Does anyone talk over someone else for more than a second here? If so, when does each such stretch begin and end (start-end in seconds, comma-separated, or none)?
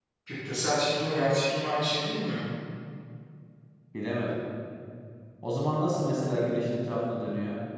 none